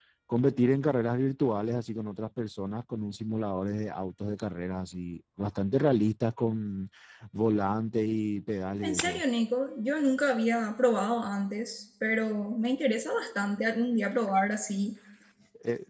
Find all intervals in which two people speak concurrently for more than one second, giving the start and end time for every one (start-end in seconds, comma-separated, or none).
none